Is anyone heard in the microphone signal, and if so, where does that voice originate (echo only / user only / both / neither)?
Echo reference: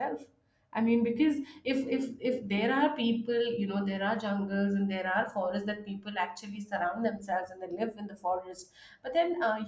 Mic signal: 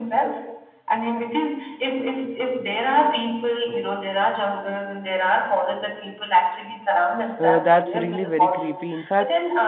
both